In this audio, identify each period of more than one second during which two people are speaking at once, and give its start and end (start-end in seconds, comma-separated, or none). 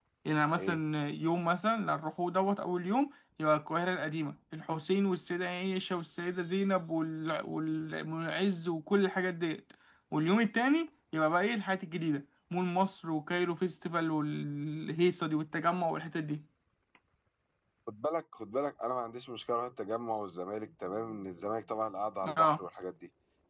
none